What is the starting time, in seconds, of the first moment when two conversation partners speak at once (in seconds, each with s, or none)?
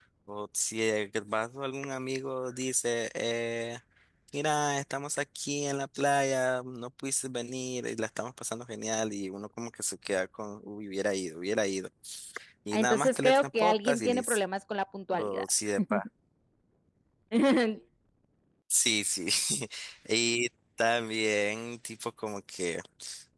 12.7 s